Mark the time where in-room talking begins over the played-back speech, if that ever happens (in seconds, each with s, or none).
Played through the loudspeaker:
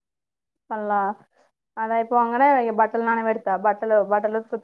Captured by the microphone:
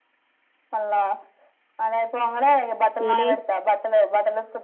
3.1 s